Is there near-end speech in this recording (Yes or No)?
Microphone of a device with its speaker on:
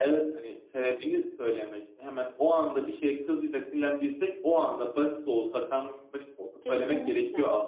Yes